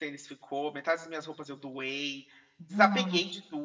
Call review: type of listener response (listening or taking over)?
listening